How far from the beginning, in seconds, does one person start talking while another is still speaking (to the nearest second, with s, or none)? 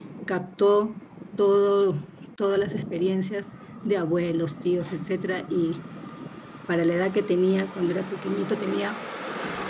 none